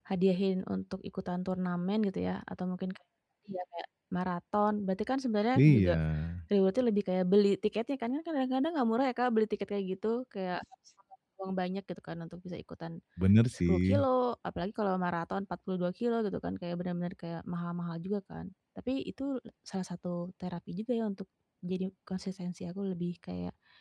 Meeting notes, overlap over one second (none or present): none